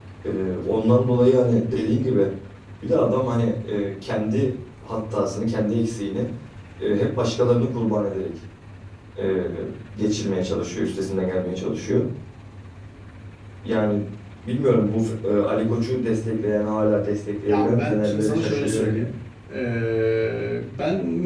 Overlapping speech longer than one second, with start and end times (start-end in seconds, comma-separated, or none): 17.5-19.1